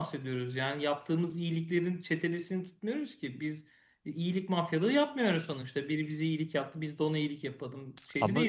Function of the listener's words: listening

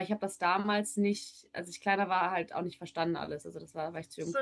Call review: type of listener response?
taking over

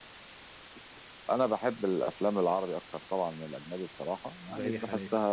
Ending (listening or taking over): listening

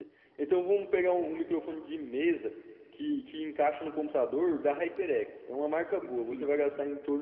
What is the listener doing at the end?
listening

